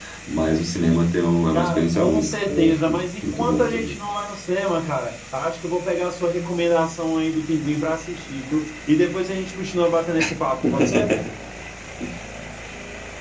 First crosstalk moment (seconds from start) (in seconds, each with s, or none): 1.5 s